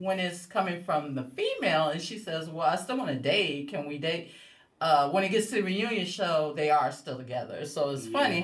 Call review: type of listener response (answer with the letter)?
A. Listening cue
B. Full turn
A